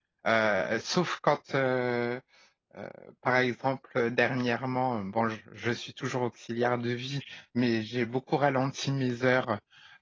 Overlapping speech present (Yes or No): No